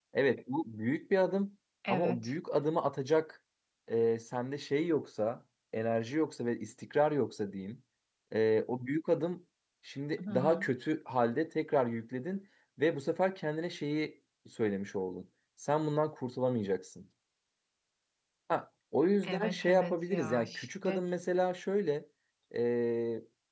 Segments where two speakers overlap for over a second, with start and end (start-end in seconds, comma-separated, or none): 19.2-21.0